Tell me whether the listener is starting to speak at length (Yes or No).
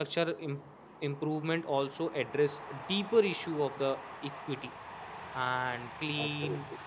No